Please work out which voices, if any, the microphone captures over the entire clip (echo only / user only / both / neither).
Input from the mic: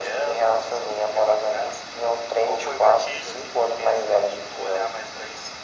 echo only